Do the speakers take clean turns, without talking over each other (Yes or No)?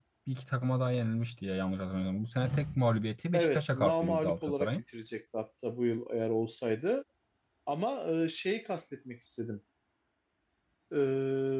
No